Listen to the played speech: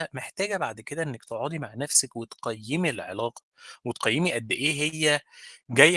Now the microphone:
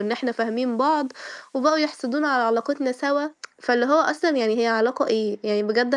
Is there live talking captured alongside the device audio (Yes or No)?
Yes